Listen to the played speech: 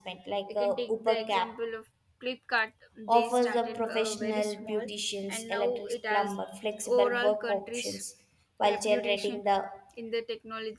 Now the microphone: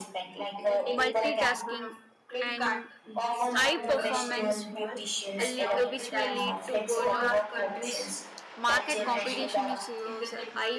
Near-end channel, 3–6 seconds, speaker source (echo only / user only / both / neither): both